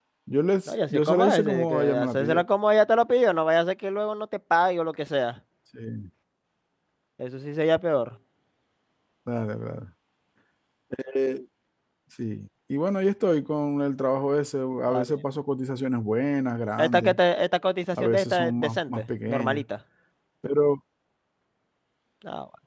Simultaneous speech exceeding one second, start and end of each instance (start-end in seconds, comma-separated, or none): 0.7-2.4, 17.9-19.6